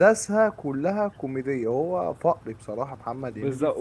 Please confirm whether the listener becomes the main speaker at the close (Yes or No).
Yes